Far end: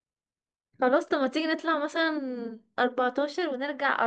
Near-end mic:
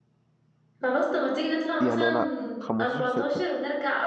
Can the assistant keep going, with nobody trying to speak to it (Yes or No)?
No